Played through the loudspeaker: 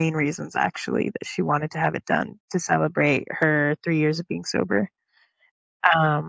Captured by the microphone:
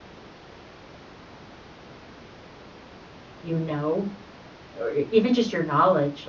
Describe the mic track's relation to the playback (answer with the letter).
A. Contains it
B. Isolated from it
B